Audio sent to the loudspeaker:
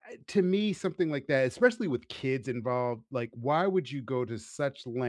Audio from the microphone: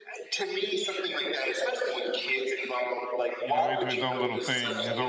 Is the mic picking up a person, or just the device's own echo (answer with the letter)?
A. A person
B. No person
A